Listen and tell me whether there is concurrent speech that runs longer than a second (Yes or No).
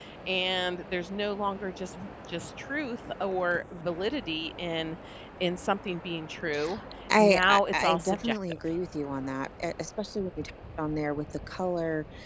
Yes